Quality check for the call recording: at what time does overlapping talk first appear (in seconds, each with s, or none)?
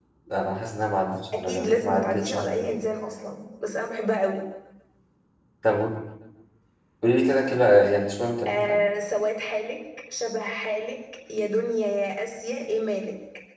1.3 s